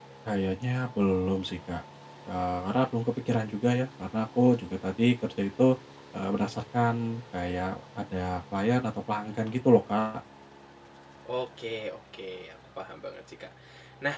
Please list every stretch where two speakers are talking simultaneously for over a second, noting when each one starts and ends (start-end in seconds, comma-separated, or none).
none